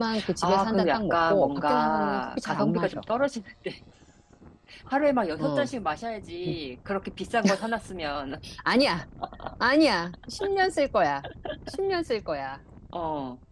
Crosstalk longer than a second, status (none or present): present